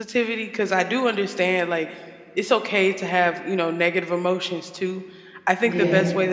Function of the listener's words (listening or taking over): listening